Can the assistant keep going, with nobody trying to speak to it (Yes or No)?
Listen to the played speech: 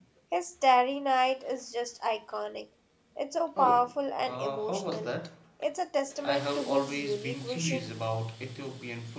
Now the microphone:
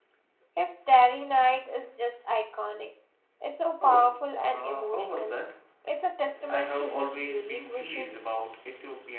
Yes